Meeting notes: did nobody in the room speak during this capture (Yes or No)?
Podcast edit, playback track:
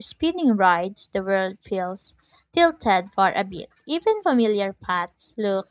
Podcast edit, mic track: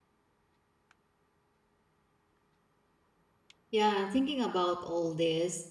No